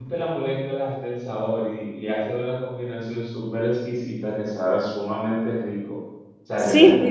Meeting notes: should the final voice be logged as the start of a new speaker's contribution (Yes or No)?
Yes